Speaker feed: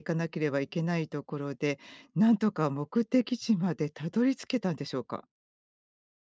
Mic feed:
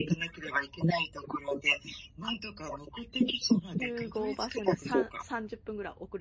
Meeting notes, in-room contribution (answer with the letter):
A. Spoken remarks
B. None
A